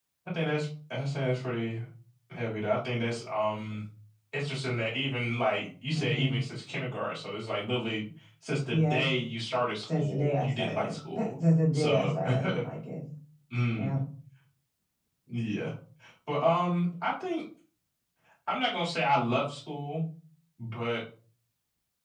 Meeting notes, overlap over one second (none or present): present